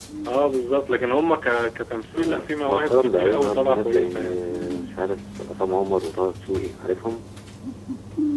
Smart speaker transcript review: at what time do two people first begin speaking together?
2.1 s

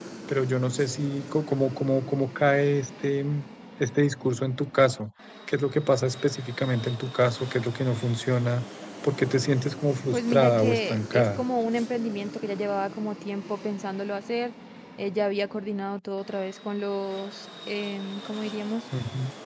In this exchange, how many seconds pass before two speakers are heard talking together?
9.9 s

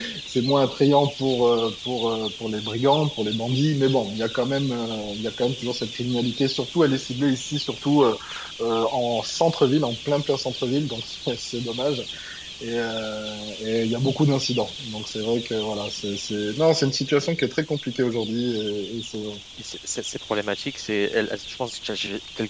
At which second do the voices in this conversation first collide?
none

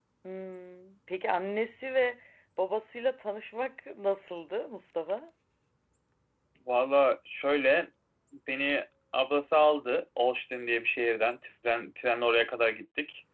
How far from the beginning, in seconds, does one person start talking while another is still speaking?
none

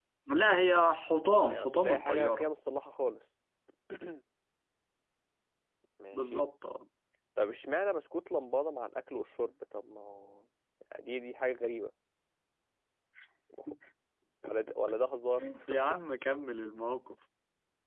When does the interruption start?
1.3 s

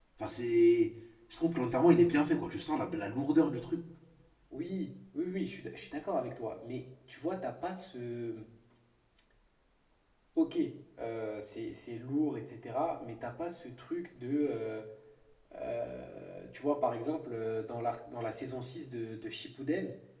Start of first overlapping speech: none

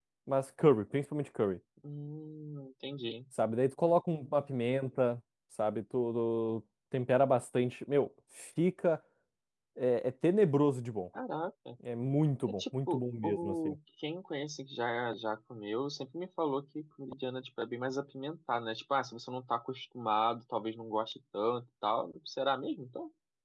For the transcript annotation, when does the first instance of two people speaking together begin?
12.5 s

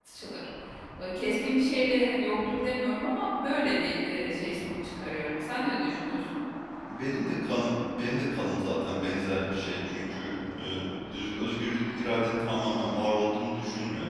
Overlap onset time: none

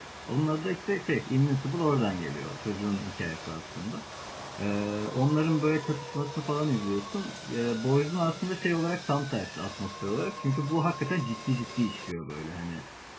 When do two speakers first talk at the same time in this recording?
none

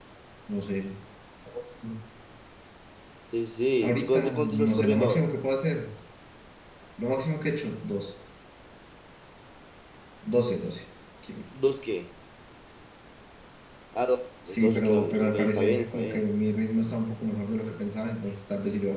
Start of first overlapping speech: 3.8 s

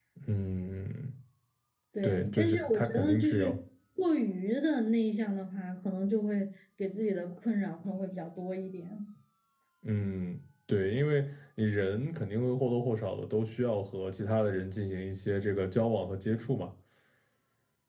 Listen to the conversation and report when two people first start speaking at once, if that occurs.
2.0 s

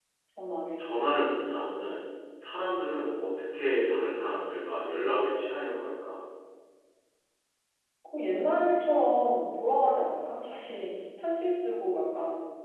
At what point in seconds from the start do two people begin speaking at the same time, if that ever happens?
none

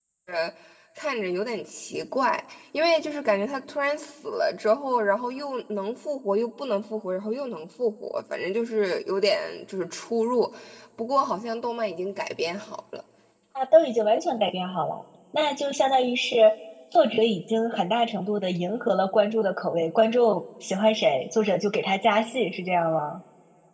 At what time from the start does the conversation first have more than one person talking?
none

